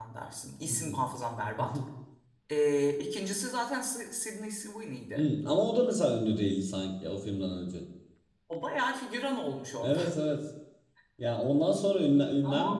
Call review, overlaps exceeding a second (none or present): none